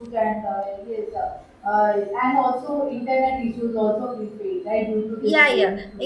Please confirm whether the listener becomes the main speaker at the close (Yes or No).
Yes